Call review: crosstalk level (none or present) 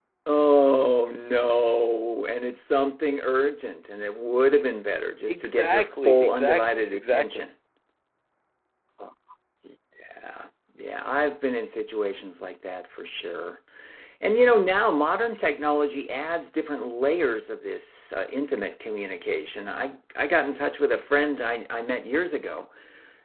present